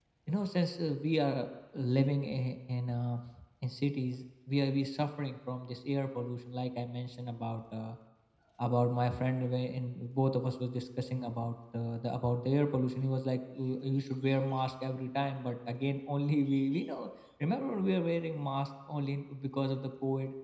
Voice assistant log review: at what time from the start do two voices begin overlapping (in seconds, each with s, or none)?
none